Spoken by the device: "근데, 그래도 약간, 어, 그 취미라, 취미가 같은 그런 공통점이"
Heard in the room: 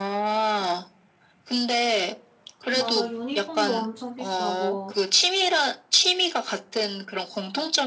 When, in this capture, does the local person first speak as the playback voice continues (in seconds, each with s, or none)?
2.7 s